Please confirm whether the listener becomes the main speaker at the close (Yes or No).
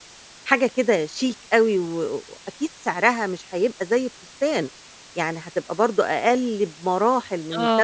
Yes